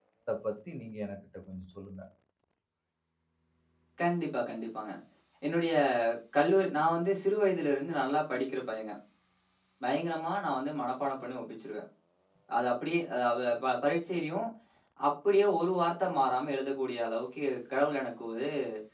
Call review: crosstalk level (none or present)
none